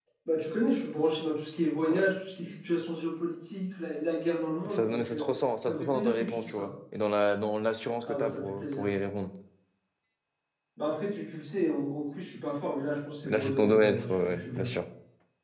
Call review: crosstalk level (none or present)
present